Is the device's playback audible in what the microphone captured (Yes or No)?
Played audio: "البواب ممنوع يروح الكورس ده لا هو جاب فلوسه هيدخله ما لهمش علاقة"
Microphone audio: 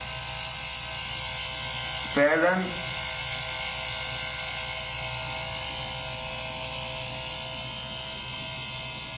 No